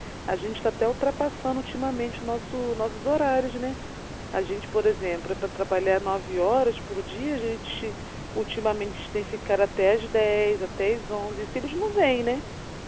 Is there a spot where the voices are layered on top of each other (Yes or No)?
No